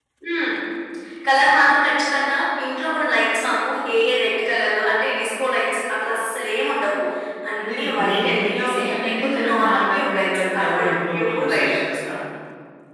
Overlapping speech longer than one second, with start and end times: 7.6-11.8

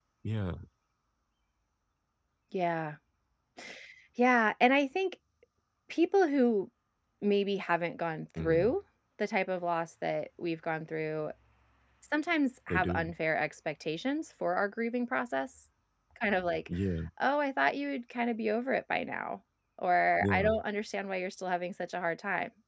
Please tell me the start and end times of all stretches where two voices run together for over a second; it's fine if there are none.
none

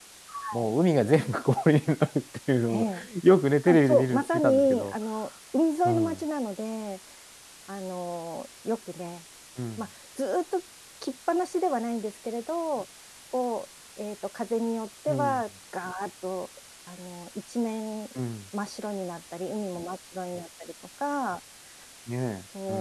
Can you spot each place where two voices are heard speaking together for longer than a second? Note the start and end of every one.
3.7-4.9

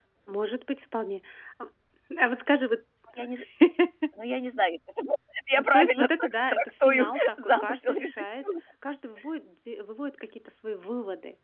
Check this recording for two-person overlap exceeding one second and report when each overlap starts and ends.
5.7-8.4

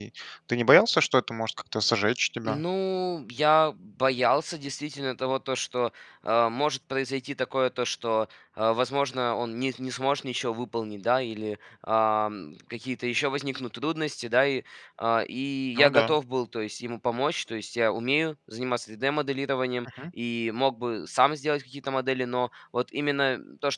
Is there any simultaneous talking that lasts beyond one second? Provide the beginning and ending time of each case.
none

